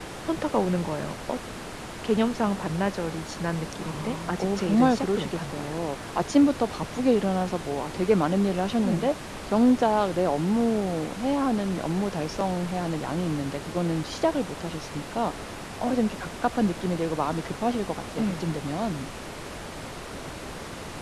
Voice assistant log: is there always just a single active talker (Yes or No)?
No